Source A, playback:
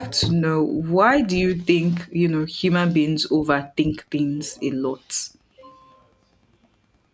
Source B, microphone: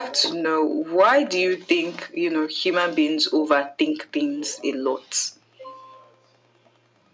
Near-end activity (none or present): none